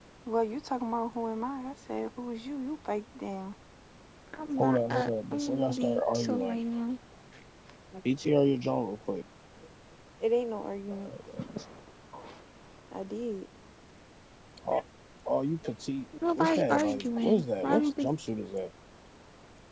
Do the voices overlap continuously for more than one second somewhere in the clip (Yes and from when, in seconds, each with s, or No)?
Yes, from 4.6 s